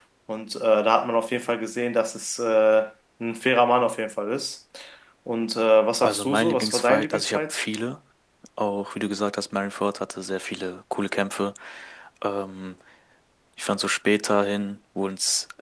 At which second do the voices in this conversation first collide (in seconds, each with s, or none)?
6.0 s